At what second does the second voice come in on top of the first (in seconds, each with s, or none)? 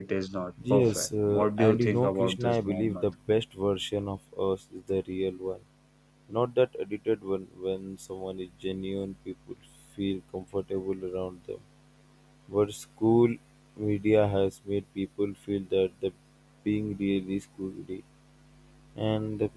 0.7 s